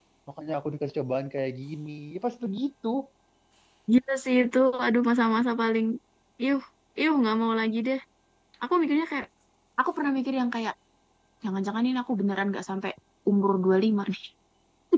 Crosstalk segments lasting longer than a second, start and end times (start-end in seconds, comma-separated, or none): none